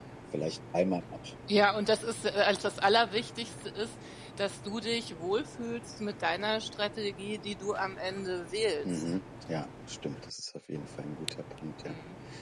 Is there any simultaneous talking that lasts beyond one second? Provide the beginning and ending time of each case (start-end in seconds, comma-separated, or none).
none